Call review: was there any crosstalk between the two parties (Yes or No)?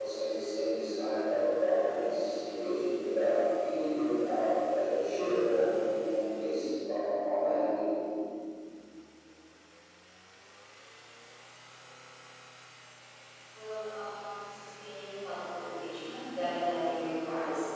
No